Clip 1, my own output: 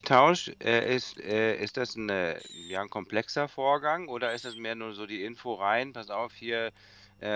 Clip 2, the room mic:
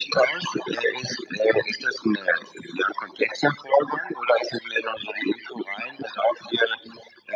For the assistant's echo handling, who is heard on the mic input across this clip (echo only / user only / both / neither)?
echo only